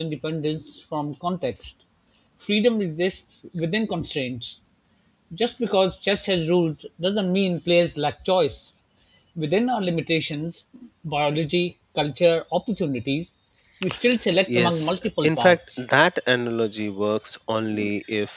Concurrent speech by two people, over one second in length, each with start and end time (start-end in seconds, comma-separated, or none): 14.6-15.8